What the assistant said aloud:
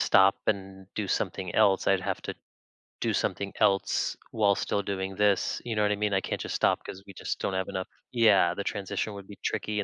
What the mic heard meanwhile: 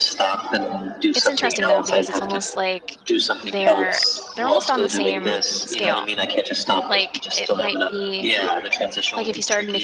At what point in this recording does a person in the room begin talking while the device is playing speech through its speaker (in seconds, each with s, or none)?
1.1 s